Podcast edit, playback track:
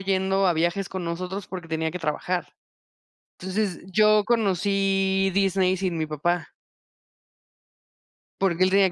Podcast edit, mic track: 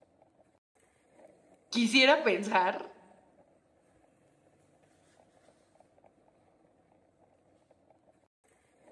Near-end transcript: quisiera pensar

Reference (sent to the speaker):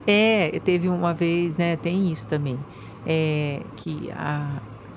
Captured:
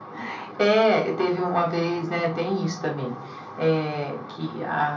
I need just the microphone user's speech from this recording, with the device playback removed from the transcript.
none

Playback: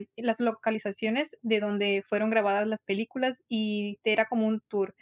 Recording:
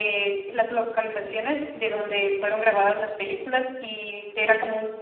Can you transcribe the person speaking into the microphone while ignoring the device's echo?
none

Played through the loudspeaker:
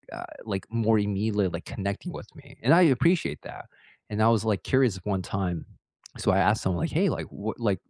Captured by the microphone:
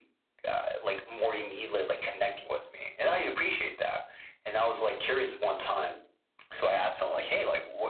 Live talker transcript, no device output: none

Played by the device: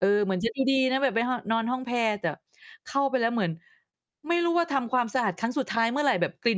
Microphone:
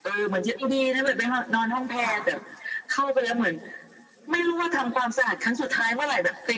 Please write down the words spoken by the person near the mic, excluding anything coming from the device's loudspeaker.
ค่ะ

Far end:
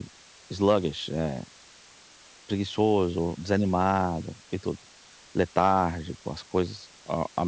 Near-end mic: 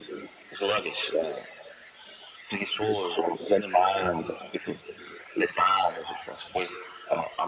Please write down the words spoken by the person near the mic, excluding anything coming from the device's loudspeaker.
none

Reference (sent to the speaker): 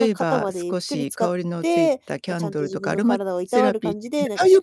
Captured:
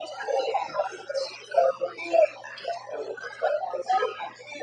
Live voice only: none

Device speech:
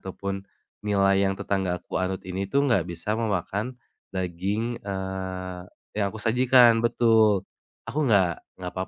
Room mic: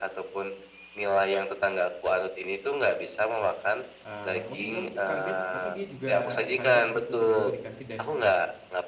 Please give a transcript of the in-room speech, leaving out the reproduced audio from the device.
eee, mungkin kamu k kaget tapi dia juga kaget gitu tiba-tiba dikasih dan,

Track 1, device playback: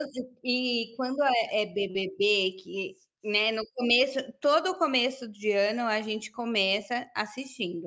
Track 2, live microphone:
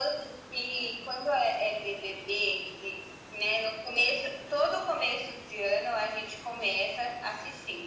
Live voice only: none

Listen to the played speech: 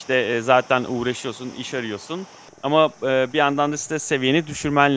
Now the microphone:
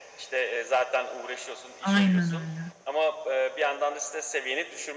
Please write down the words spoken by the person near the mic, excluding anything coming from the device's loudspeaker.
Aynen öyle.

